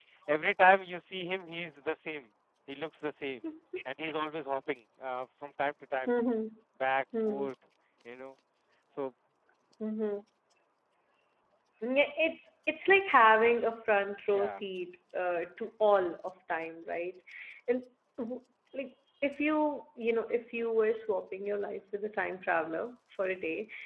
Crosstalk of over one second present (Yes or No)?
No